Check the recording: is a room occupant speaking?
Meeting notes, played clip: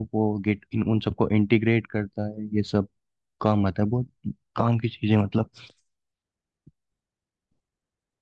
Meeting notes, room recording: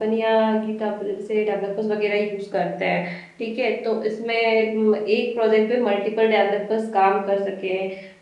Yes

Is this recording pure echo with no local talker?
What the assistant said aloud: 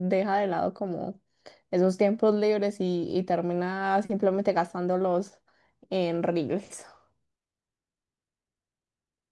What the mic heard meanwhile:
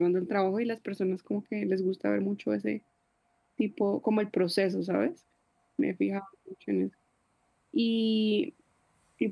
No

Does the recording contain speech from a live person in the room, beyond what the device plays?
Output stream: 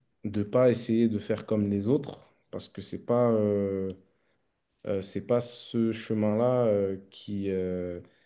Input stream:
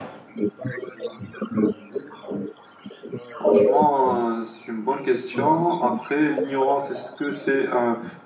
Yes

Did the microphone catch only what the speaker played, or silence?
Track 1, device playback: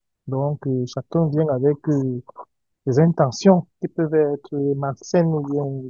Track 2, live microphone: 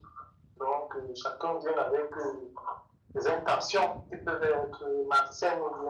Yes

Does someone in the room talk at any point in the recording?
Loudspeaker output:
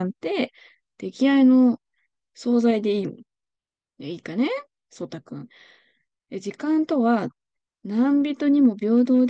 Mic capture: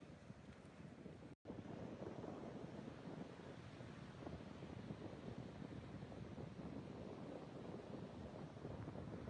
No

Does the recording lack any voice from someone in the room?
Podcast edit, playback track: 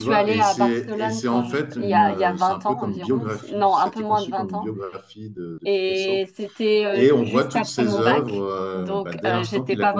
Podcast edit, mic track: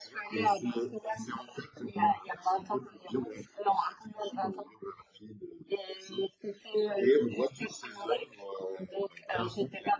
Yes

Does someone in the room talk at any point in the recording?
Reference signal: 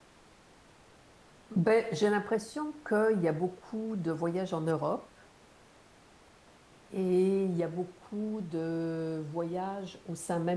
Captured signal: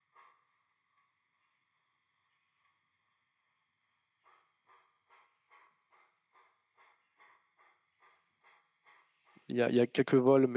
Yes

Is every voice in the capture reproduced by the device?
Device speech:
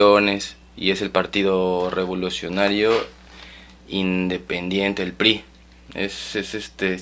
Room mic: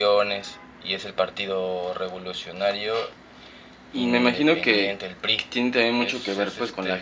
No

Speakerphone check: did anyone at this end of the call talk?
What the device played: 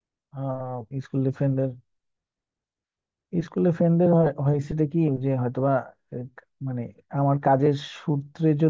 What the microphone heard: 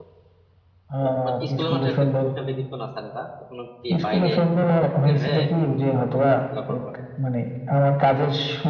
Yes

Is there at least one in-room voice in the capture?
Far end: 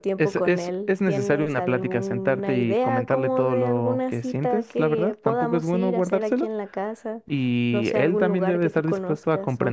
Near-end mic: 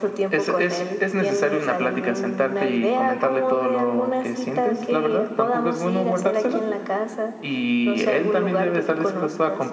No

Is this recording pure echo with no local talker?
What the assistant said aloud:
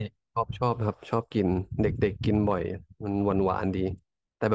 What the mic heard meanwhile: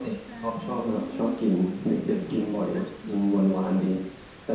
No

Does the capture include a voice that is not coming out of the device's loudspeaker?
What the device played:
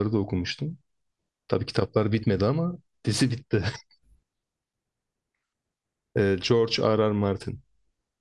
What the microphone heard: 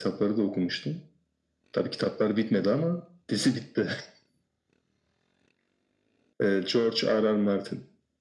No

